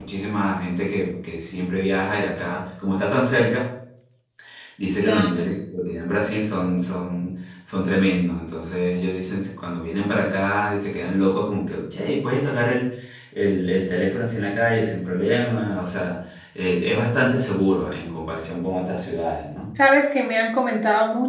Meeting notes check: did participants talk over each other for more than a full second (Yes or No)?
No